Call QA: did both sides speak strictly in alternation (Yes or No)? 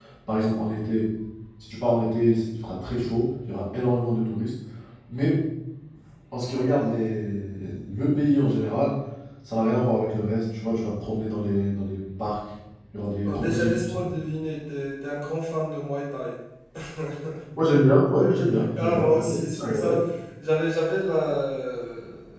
No